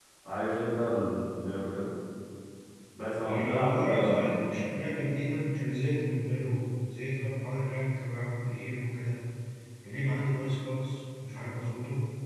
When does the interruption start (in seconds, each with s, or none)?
3.3 s